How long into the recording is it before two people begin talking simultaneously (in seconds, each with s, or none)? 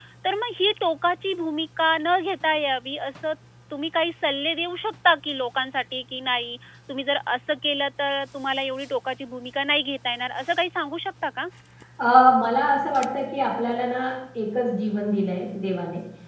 none